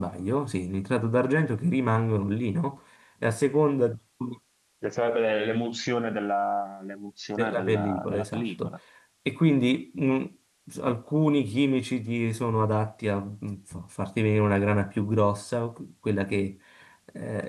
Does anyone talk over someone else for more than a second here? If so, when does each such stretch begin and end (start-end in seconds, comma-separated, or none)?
7.4-8.7